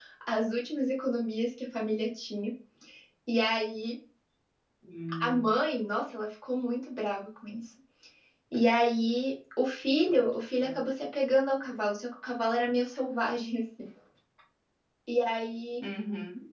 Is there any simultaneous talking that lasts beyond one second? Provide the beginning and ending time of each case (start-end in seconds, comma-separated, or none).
none